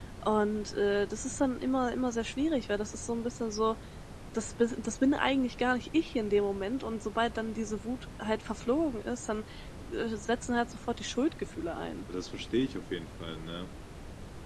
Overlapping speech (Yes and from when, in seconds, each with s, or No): No